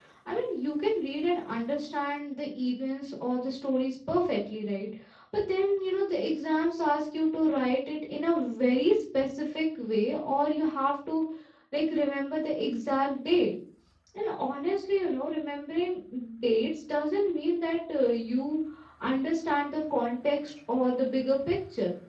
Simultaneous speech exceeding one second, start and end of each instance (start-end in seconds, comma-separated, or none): none